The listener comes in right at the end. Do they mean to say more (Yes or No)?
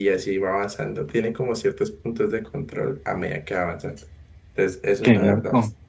No